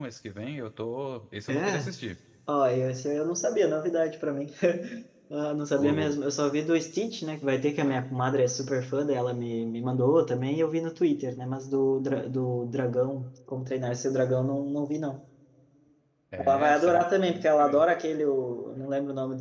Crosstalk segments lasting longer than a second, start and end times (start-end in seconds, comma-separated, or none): 16.4-17.9